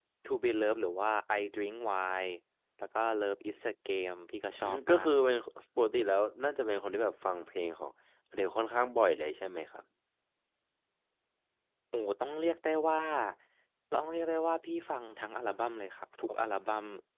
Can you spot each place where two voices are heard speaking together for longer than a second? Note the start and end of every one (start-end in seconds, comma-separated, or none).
none